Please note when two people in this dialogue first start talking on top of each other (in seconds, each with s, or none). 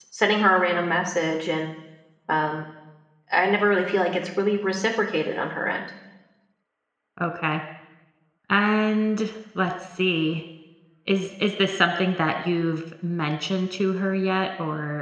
none